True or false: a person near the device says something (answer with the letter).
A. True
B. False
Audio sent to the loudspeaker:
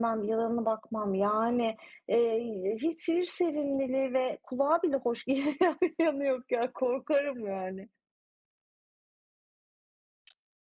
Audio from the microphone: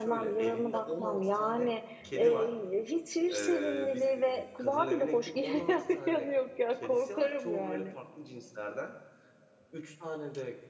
A